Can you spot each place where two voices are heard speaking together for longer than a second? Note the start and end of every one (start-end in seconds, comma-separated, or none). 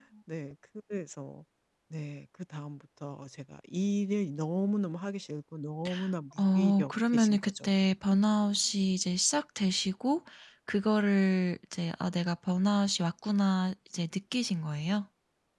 6.4-7.7